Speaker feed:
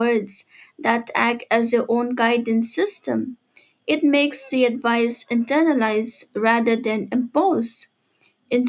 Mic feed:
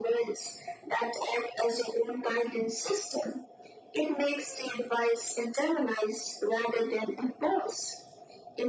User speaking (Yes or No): No